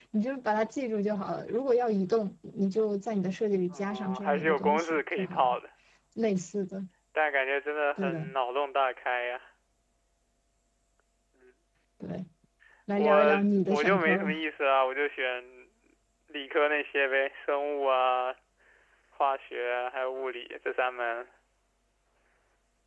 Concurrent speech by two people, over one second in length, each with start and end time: 3.7-5.5, 13.0-14.4

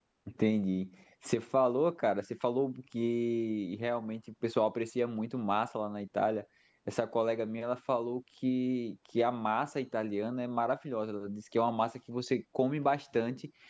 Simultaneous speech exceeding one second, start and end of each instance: none

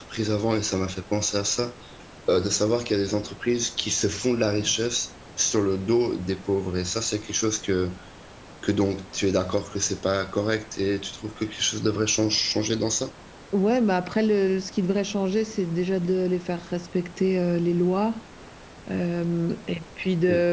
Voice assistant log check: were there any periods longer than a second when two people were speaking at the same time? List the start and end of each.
none

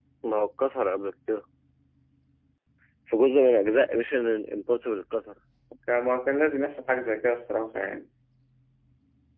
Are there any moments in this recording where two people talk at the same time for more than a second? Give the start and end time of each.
none

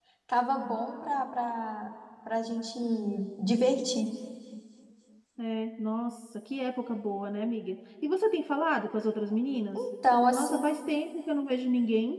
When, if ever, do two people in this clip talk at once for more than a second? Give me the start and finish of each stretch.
none

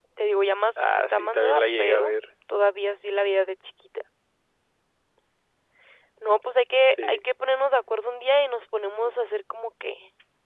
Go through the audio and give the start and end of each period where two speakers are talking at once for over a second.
0.8-2.1

